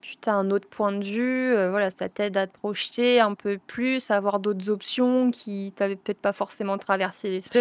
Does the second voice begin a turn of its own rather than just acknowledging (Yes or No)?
Yes